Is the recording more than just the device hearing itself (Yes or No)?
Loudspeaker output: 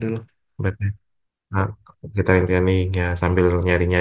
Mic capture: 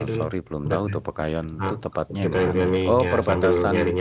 Yes